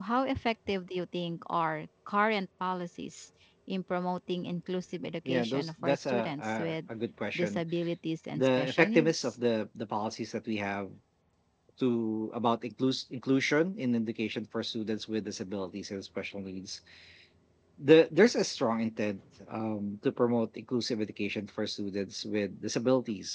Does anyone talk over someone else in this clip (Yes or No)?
Yes